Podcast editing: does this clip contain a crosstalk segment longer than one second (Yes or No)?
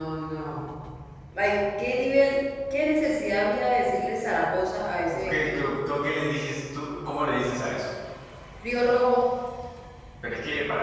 No